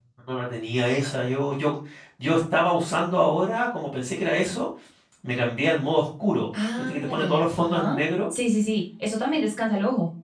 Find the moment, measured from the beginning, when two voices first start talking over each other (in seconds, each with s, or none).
6.5 s